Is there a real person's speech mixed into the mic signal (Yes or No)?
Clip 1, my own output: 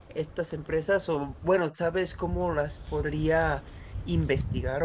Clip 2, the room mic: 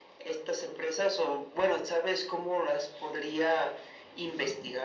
No